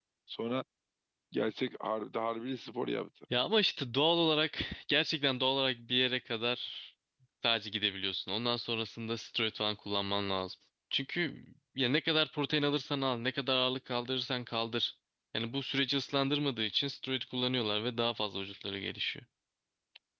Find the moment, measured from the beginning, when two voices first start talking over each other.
none

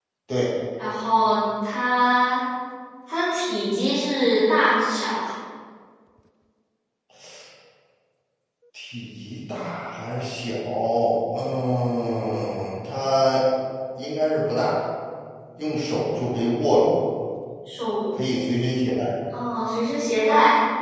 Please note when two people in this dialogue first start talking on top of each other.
none

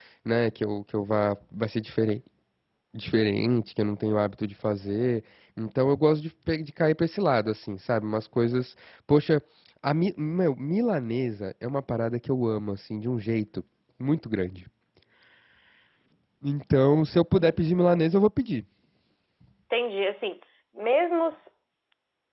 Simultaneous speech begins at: none

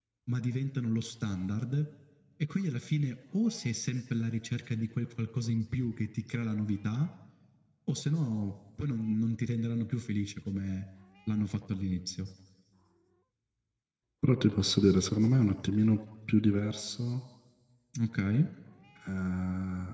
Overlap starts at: none

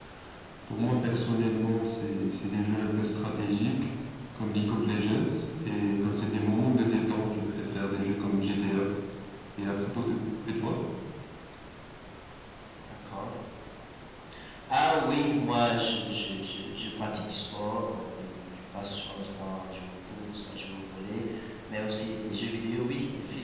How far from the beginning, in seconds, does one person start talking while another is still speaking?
none

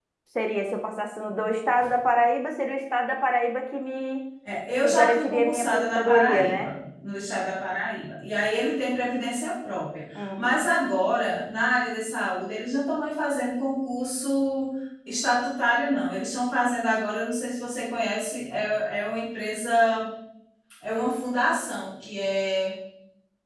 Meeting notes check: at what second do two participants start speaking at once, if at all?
4.8 s

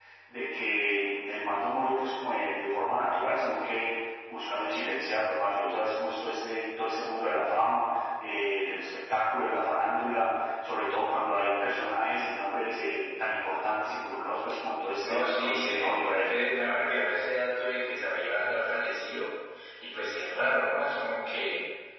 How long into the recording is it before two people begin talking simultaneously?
15.0 s

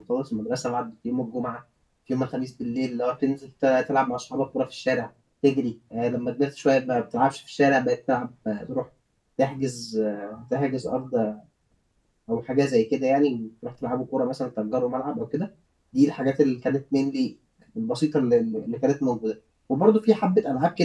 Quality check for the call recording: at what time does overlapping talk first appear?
none

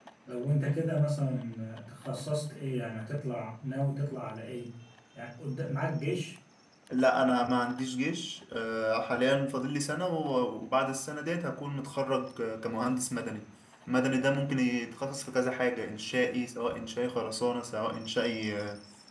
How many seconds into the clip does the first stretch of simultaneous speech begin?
none

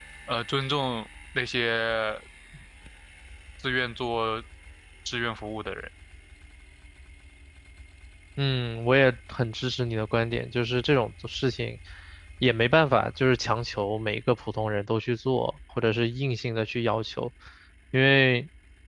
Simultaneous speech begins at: none

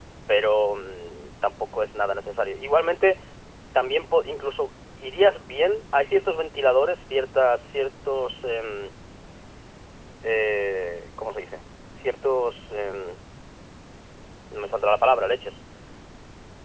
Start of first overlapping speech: none

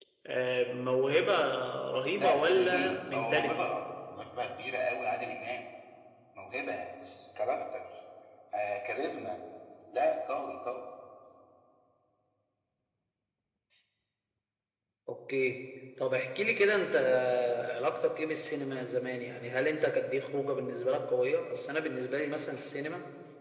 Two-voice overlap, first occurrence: 2.1 s

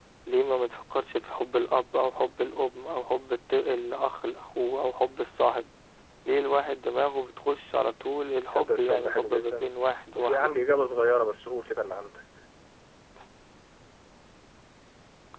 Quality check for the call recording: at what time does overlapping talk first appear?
8.5 s

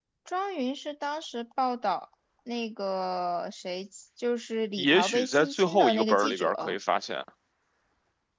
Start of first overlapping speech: 4.8 s

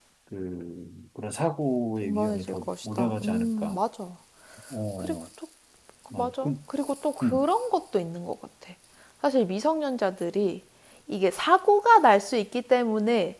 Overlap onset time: 2.0 s

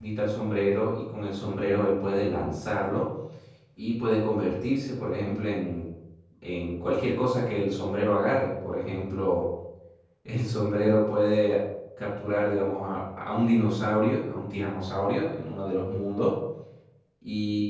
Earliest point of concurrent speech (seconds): none

